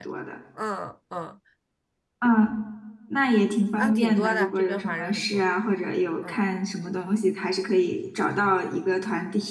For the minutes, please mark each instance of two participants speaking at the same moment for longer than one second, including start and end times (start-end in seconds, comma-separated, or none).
3.8-5.4